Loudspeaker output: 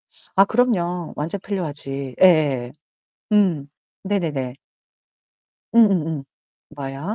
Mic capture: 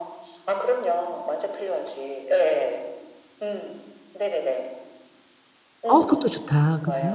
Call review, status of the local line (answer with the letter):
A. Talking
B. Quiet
A